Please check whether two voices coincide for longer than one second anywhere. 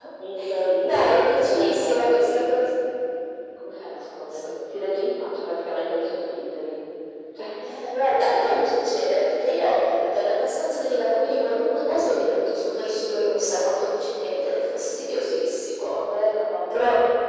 Yes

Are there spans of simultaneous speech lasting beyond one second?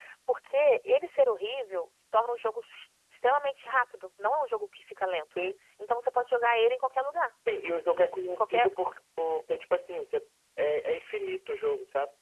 No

